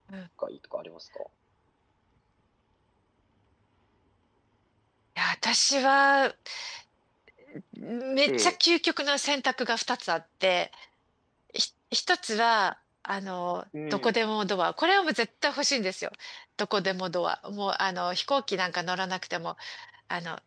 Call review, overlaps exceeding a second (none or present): none